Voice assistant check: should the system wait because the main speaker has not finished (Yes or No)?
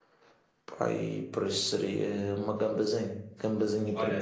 No